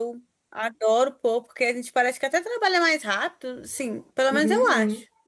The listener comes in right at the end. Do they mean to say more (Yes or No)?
Yes